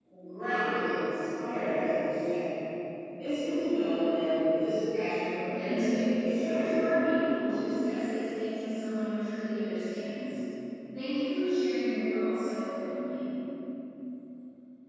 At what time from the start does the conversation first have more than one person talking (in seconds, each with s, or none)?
5.5 s